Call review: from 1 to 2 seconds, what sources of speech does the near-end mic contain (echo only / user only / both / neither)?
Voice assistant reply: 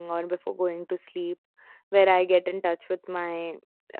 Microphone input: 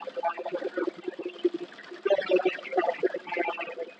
echo only